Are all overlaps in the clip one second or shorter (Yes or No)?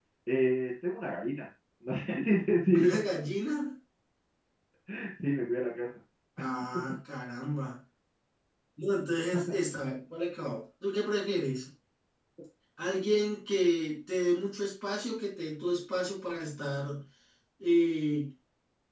Yes